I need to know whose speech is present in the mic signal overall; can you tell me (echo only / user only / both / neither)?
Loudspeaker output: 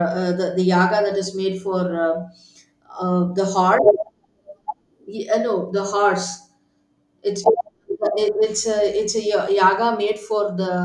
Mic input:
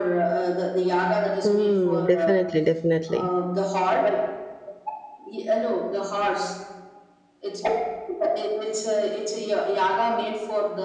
both